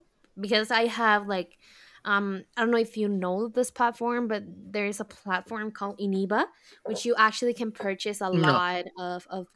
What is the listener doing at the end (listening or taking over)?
listening